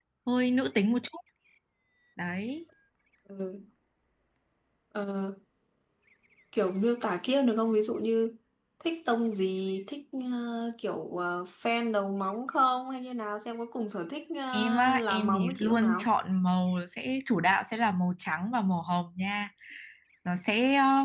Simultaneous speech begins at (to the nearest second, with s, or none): 15 s